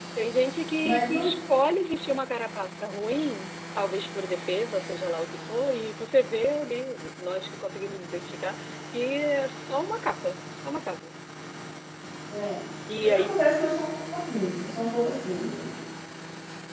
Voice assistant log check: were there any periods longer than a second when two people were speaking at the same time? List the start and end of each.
none

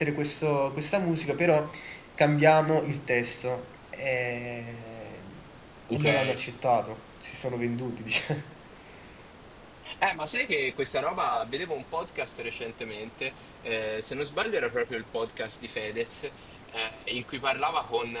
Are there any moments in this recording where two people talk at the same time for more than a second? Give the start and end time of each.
none

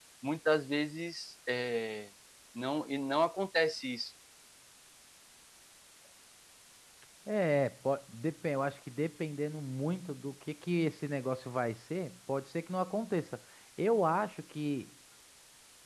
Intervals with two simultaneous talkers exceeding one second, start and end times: none

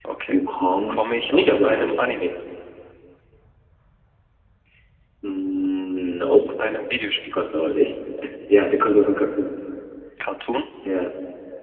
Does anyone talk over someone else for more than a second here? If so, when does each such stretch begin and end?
0.9-2.3

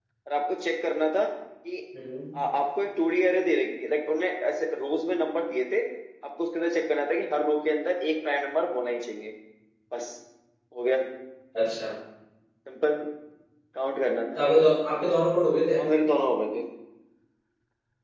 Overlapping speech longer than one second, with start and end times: none

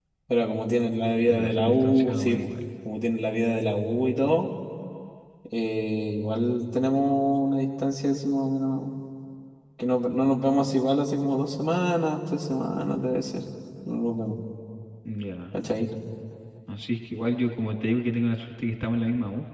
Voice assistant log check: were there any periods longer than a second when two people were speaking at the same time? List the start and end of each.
1.3-2.5

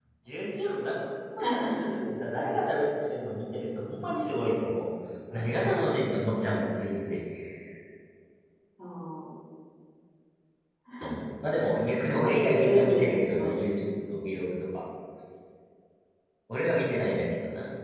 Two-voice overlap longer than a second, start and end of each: 12.2-13.5

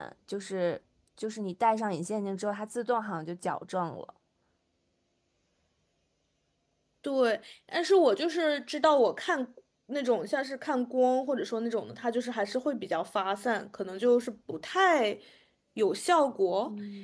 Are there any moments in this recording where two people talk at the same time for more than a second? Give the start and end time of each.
none

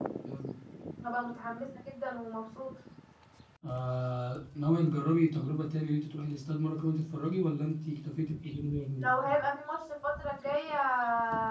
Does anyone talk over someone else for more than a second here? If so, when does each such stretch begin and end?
none

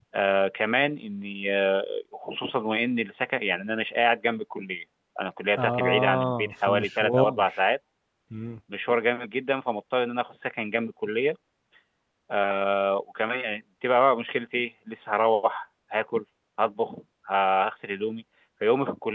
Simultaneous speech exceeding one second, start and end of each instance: 5.6-7.4

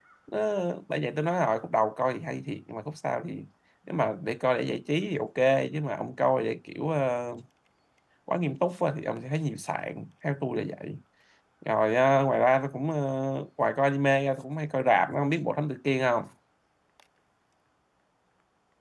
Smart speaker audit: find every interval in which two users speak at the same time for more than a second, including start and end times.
none

